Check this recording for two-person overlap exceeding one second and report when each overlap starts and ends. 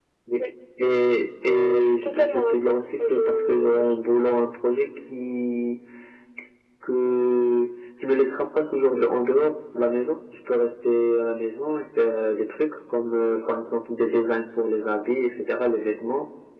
1.4-4.0

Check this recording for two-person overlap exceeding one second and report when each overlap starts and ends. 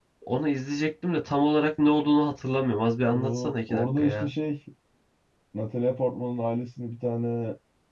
3.1-4.3

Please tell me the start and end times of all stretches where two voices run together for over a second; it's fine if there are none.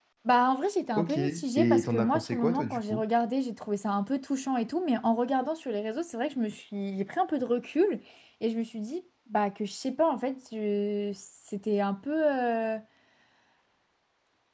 1.0-3.0

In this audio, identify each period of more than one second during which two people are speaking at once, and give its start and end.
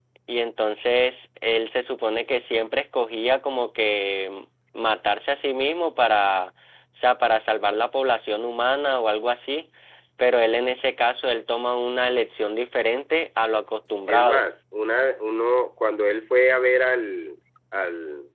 none

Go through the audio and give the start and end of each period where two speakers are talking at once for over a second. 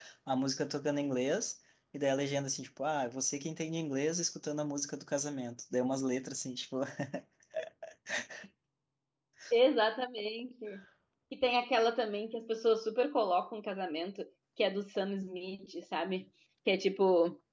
none

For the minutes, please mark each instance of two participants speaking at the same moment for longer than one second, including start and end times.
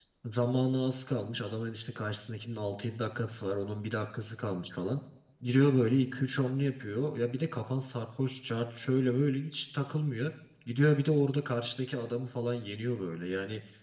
none

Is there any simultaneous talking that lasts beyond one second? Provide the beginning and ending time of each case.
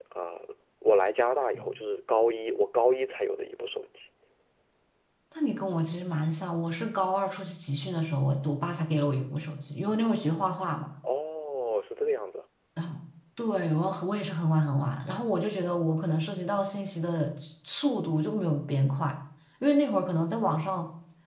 none

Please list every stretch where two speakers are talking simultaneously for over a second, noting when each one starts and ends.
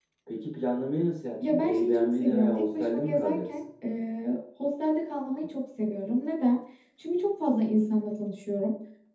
1.5-3.6

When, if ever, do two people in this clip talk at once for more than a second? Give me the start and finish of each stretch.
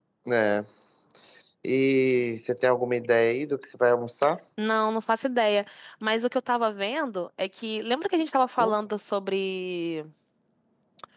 none

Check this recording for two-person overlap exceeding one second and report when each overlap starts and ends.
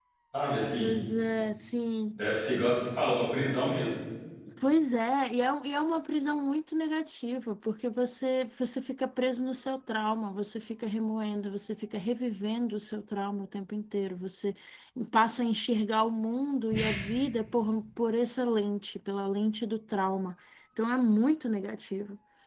none

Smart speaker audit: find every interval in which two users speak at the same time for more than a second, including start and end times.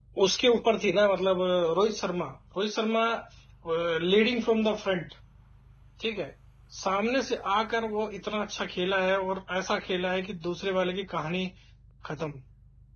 none

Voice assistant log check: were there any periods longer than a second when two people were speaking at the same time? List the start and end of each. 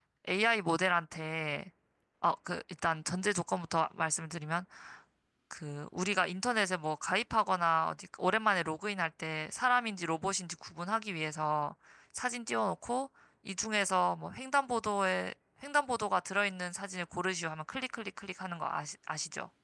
none

